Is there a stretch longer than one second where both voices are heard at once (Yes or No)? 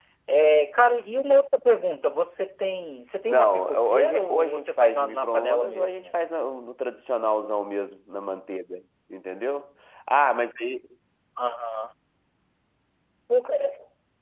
Yes